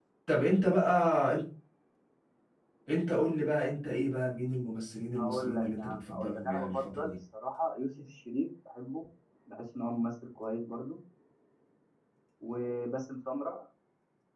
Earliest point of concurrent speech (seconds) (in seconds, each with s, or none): 5.2 s